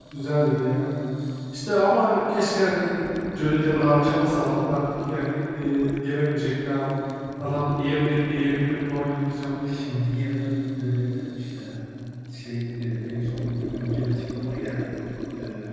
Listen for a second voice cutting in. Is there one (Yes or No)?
No